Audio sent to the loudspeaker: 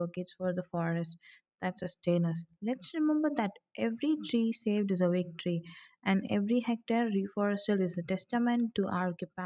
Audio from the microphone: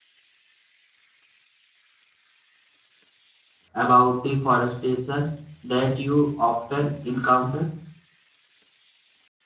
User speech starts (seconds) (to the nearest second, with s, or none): 4 s